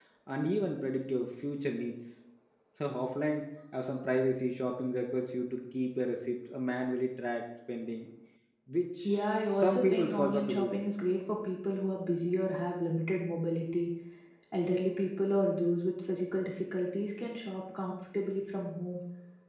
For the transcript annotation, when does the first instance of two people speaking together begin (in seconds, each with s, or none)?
9.1 s